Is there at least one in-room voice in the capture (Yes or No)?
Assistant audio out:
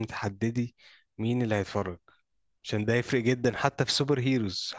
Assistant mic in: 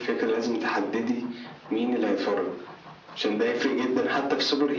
No